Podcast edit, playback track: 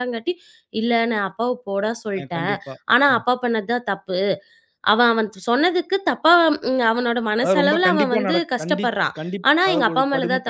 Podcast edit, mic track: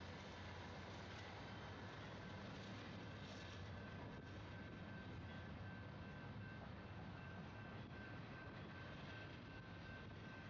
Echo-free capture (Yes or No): Yes